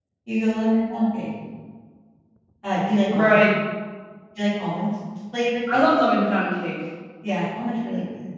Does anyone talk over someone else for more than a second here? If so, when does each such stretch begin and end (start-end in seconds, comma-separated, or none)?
none